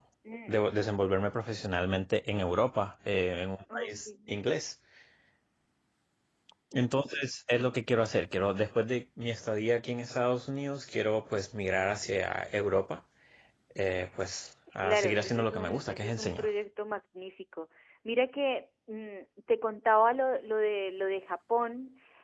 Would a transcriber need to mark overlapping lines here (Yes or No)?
Yes